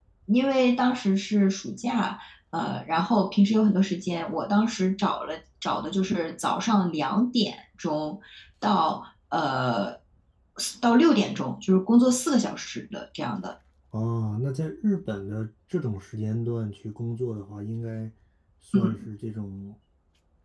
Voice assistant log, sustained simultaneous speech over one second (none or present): none